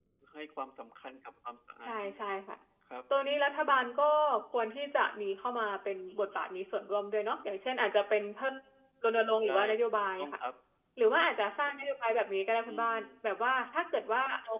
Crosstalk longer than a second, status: none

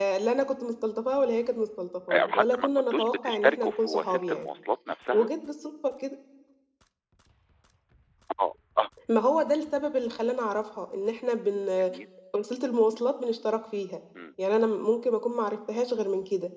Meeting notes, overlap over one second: present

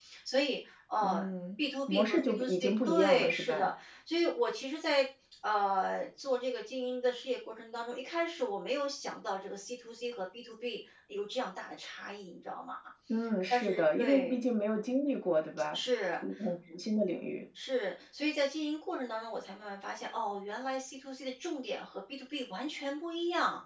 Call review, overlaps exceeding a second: present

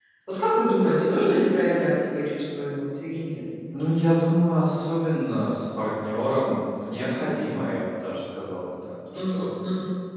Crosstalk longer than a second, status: none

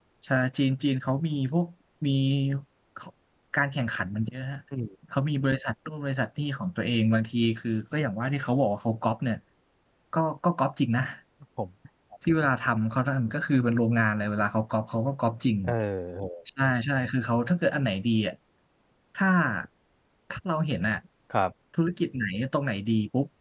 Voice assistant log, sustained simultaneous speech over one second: none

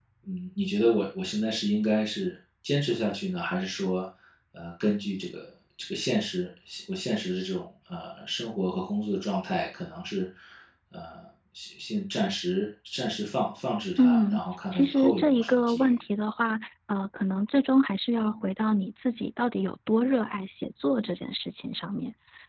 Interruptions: present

